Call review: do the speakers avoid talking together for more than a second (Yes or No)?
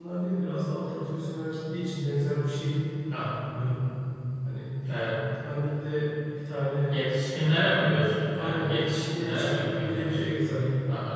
No